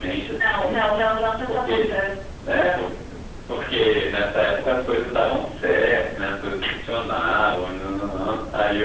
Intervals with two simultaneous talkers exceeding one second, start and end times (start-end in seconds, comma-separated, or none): none